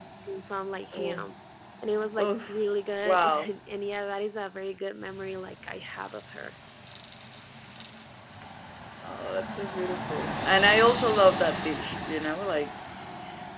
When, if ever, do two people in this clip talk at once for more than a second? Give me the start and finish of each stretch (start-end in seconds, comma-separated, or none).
none